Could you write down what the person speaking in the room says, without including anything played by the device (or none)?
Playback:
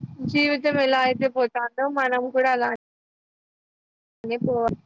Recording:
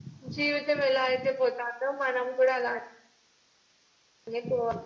none